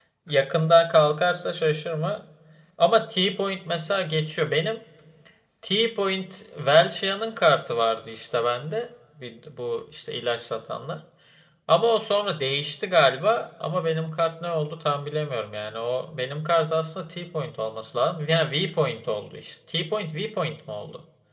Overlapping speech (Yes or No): No